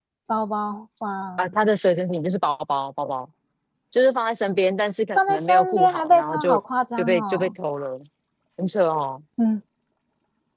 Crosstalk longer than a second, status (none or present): present